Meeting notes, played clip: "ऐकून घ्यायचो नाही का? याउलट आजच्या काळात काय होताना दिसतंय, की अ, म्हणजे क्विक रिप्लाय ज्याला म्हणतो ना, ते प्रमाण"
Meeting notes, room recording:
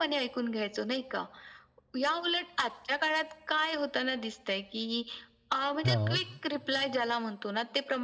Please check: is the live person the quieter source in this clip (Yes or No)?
No